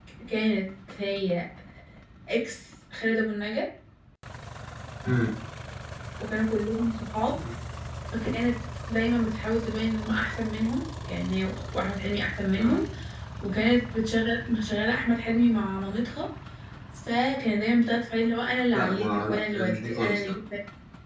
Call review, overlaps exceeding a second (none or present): present